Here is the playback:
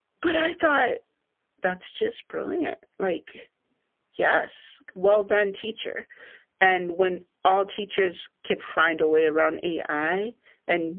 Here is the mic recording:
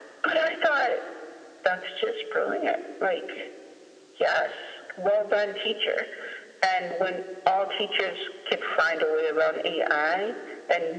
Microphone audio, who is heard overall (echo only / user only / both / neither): echo only